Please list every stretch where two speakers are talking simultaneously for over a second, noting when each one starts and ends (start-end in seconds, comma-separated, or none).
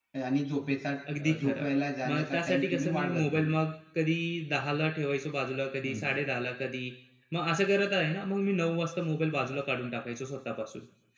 2.1-3.6